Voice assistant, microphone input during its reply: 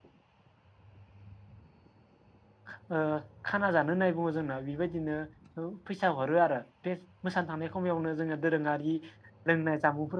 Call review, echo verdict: none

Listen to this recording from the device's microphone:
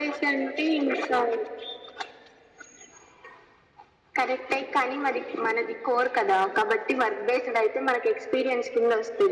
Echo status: present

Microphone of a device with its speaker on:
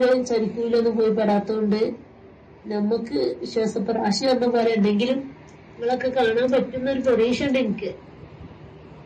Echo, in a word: present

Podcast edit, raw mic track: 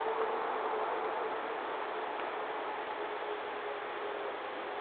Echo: none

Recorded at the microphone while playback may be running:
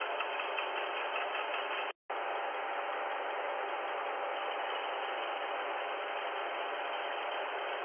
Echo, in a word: none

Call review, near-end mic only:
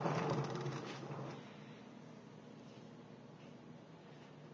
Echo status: none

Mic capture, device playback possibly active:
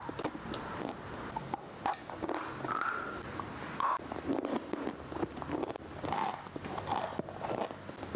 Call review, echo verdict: none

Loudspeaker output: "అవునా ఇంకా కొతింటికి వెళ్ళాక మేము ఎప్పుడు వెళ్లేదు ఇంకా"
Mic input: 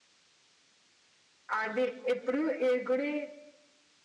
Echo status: none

